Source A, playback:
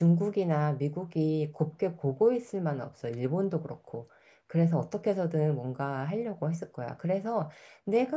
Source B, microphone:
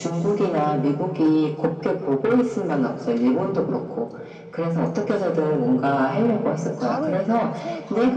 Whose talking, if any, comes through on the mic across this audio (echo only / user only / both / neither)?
both